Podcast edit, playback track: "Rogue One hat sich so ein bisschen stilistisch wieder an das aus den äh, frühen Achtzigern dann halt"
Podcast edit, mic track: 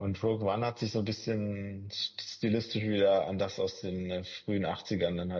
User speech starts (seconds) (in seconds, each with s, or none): none